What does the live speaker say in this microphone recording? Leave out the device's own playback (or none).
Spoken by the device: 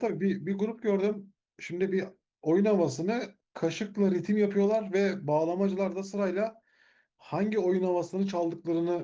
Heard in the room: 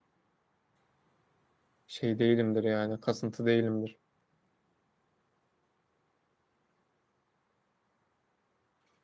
şey değilimdir yani, kasıntı değilimdir.